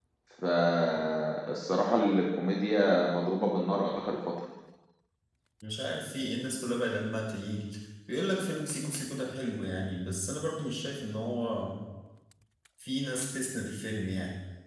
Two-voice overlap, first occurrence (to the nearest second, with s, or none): none